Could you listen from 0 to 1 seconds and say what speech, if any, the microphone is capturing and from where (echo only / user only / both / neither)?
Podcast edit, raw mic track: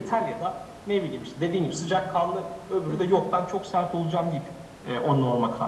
echo only